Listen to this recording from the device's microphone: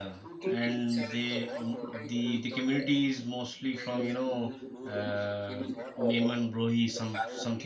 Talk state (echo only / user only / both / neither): both